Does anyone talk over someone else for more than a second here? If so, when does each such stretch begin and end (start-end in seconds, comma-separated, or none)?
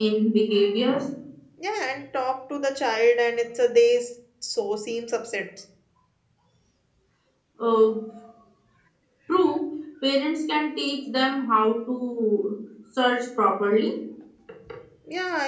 none